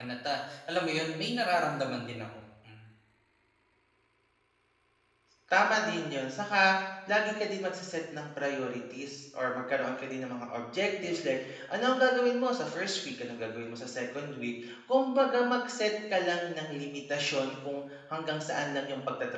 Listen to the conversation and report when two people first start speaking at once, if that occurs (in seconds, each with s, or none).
none